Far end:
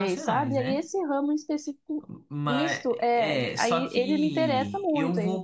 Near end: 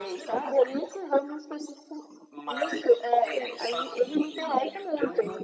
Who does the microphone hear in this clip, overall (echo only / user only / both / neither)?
echo only